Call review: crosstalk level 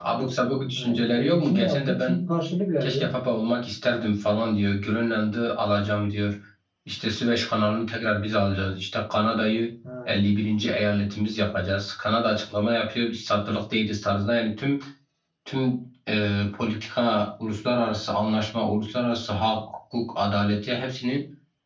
present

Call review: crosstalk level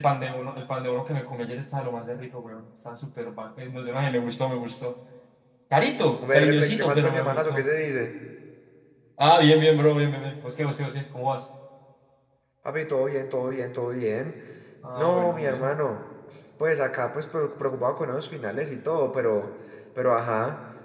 present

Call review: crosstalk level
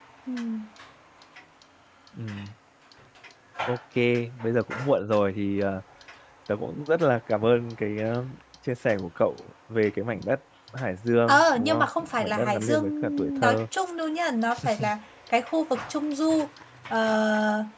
present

